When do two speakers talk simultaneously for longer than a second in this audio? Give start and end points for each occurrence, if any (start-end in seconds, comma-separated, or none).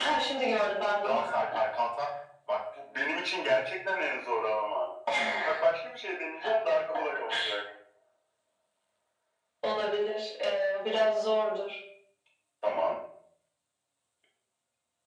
none